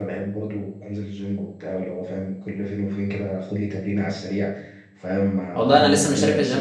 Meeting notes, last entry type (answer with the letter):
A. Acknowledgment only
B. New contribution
B